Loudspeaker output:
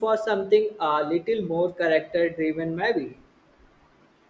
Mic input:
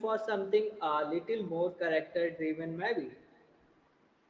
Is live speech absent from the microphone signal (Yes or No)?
Yes